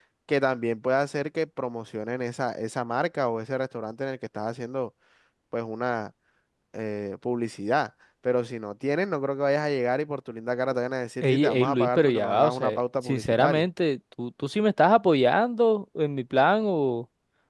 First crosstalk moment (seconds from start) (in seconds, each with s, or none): 11.2 s